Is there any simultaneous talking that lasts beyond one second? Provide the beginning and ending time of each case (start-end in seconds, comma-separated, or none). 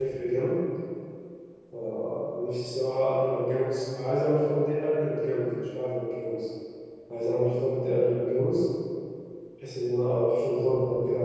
none